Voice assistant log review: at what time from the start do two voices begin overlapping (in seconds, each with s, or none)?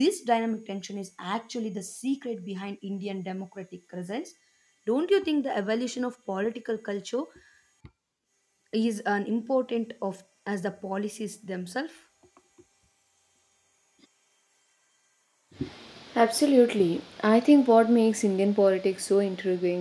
none